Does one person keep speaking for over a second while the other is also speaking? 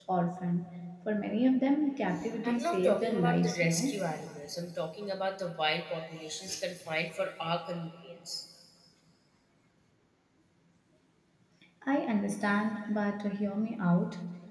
Yes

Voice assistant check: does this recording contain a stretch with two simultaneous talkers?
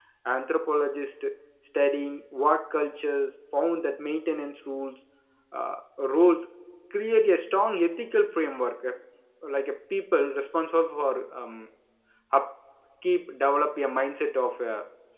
No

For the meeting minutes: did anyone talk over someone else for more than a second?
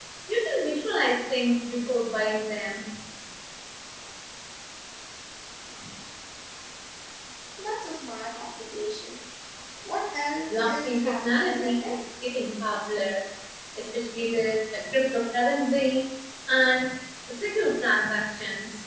Yes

